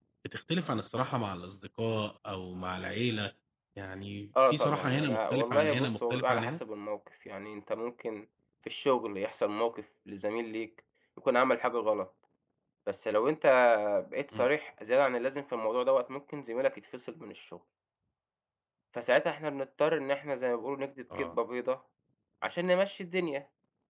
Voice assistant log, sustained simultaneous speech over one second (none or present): present